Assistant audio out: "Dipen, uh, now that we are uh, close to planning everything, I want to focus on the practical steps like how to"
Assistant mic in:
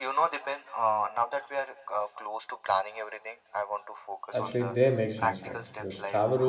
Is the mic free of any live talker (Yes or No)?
No